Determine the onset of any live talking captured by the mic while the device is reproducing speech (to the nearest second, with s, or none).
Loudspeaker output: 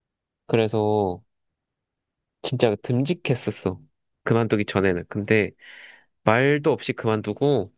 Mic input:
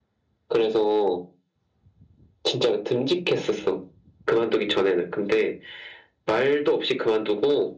none